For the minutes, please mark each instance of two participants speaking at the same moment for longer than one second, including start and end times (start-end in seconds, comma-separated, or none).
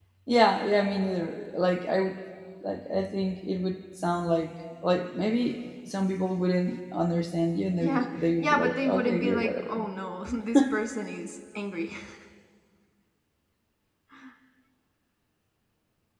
7.8-9.8